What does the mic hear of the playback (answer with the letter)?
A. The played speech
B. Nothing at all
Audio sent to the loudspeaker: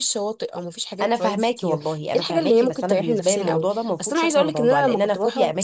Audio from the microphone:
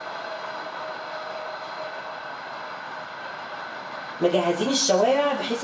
B